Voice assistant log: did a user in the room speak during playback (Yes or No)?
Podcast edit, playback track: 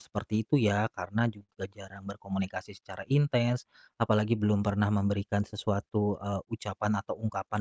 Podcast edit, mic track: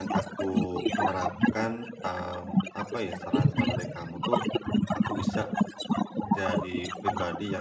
Yes